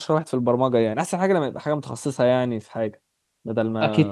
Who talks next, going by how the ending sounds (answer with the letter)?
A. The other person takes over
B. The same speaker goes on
A